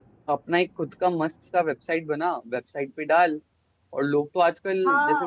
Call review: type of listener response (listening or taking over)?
taking over